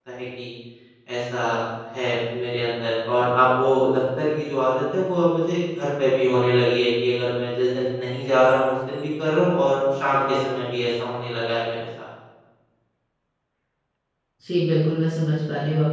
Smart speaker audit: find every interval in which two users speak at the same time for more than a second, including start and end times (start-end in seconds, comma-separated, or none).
none